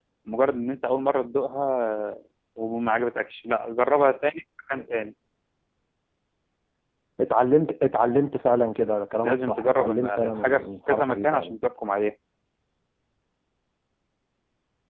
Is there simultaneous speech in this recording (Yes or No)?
Yes